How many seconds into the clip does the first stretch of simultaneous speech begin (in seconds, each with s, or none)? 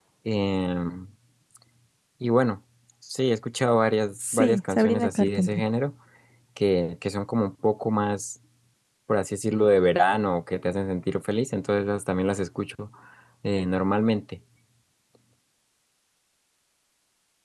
4.2 s